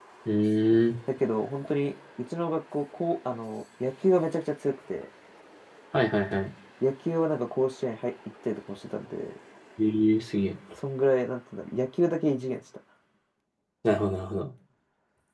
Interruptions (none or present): none